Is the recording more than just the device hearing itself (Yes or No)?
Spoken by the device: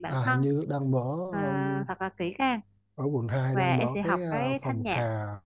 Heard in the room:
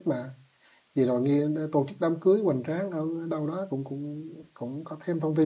Yes